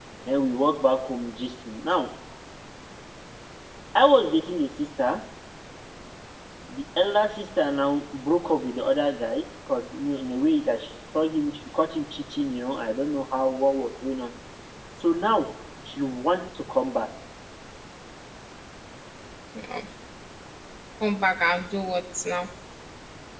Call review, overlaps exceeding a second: none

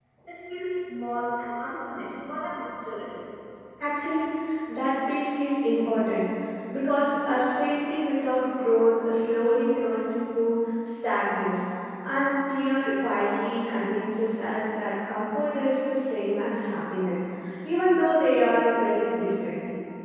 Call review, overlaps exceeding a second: none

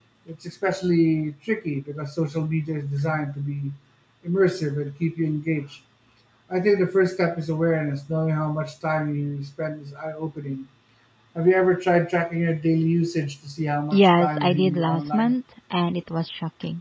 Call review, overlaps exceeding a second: present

